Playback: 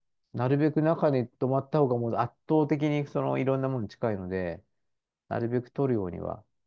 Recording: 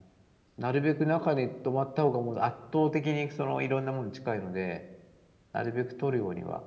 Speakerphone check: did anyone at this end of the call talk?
No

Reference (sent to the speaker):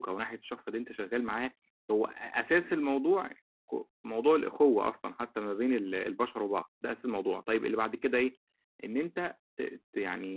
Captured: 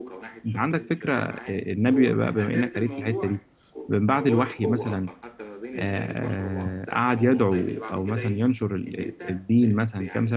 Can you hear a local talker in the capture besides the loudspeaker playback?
Yes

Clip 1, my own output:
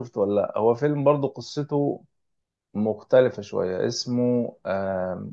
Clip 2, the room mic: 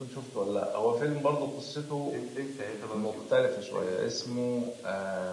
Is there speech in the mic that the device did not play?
Yes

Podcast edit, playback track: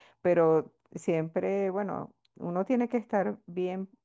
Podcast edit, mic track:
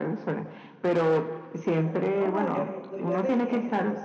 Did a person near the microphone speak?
Yes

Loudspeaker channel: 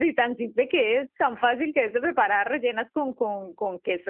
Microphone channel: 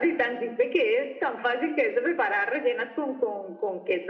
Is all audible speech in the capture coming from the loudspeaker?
Yes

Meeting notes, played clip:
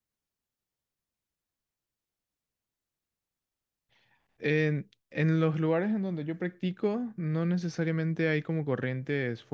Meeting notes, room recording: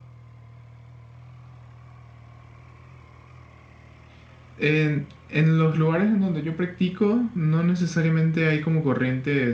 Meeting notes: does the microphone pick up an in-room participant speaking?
No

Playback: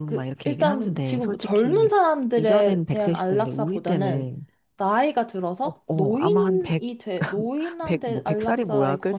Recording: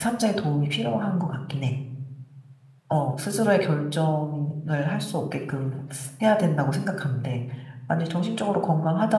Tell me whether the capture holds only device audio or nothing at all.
No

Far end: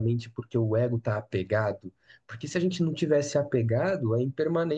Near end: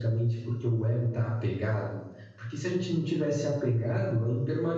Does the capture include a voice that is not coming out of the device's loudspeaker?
No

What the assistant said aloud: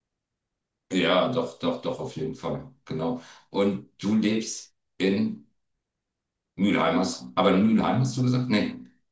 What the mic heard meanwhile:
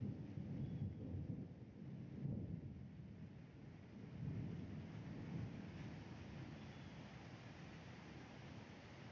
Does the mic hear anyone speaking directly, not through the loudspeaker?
No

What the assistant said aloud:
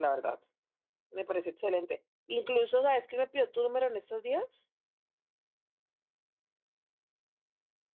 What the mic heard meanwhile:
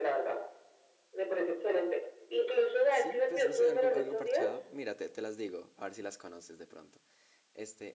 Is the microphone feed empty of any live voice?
No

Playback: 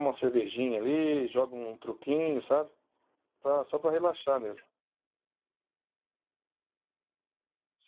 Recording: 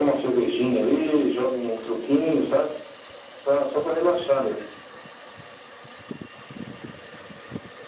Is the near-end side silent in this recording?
Yes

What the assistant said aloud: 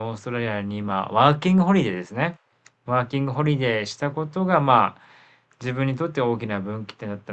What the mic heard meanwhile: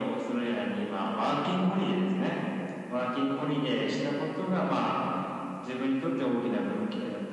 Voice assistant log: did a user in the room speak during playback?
No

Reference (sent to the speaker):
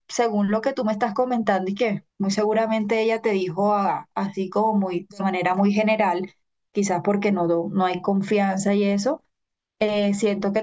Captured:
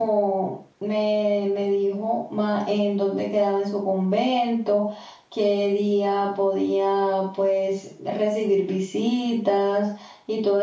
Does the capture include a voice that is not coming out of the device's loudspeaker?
Yes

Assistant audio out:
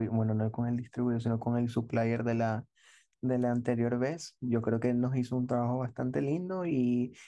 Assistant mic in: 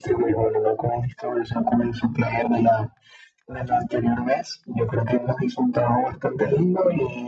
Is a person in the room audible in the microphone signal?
No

